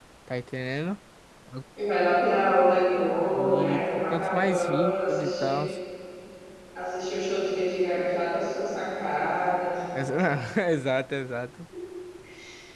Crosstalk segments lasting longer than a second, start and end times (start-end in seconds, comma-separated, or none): 3.3-5.6